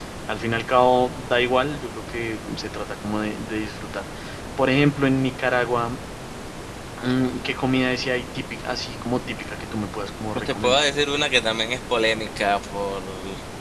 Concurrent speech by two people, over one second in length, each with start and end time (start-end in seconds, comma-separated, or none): none